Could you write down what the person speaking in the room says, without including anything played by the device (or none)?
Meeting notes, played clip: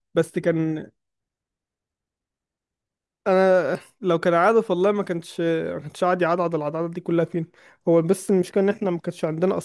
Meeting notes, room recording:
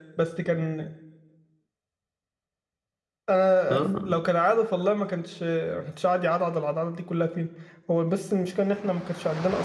اه